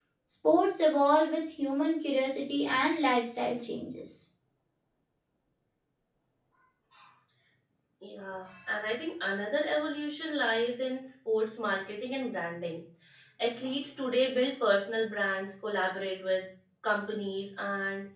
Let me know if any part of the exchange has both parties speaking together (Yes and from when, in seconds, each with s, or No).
No